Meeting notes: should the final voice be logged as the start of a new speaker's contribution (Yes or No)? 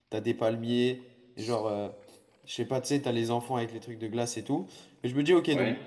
No